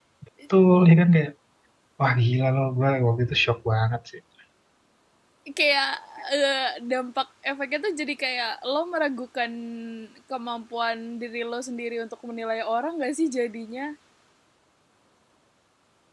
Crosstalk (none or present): none